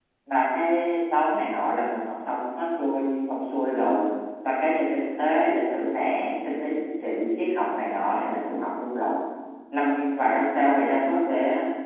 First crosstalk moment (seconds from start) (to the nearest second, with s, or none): none